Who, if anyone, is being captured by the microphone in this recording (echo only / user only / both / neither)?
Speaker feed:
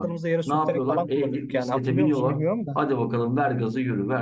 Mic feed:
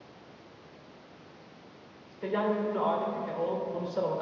user only